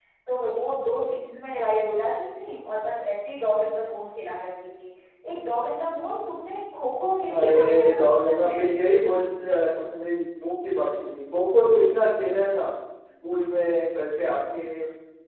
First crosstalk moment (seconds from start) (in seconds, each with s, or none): 7.3 s